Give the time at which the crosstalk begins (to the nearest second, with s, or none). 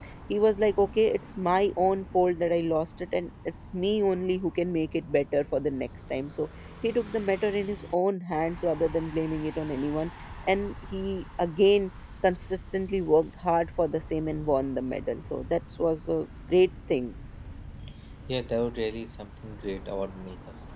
none